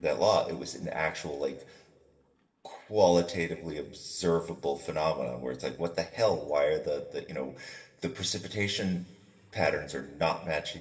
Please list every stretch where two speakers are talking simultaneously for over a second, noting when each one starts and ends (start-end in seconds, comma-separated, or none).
none